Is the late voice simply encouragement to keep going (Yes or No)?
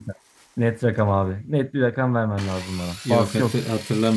No